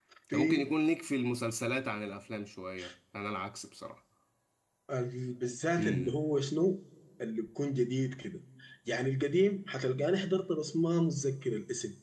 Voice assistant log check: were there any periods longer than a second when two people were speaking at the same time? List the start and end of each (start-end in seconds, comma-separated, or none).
none